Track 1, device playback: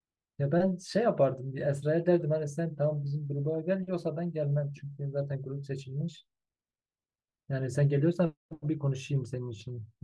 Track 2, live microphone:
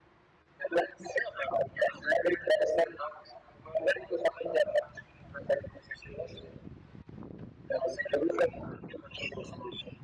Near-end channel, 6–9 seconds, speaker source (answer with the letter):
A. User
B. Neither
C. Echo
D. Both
C